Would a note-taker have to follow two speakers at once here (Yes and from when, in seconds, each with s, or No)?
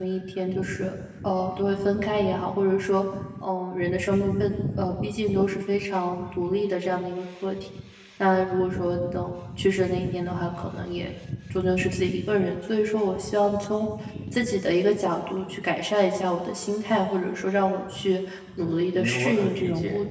Yes, from 18.6 s